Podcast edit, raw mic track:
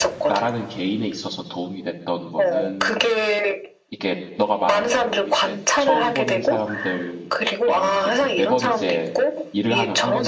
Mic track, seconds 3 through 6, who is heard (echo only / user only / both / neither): both